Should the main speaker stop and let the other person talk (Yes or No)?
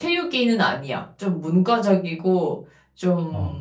No